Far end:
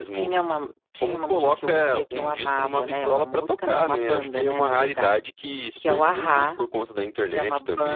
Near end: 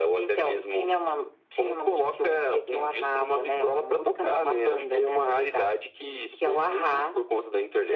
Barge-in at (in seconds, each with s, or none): none